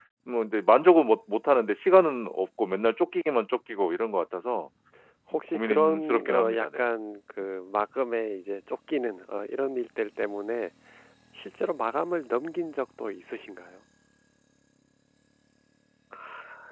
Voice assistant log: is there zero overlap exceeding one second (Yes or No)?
No